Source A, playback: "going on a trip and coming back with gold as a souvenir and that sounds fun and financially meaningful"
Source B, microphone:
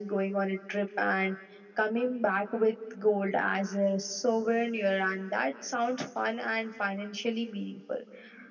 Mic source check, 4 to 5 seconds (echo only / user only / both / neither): echo only